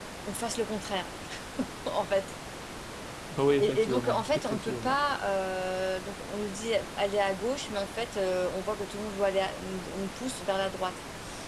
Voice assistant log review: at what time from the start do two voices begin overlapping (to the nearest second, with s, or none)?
4 s